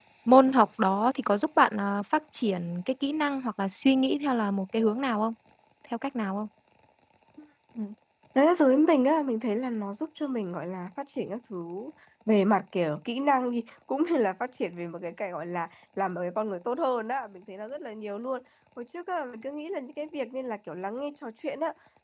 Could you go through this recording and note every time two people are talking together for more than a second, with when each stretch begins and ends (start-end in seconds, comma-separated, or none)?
none